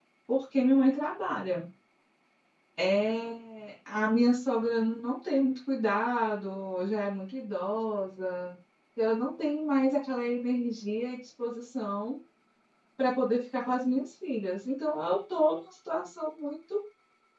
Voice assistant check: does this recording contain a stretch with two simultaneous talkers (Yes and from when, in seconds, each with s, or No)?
No